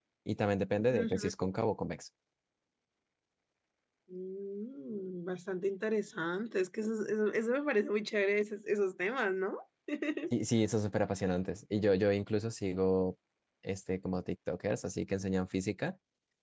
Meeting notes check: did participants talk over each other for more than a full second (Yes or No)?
No